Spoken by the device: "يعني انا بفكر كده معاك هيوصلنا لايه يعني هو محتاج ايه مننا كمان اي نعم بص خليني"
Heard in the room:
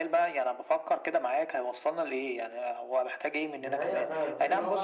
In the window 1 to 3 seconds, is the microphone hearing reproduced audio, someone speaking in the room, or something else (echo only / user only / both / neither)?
echo only